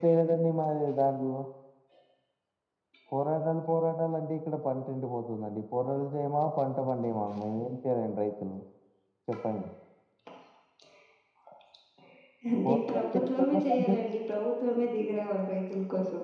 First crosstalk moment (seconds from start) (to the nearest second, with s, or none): 13 s